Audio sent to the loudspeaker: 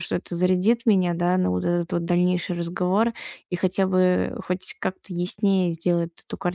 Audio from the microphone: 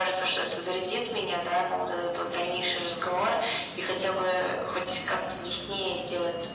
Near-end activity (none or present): none